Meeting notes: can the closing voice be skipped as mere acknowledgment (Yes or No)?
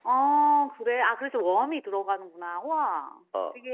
No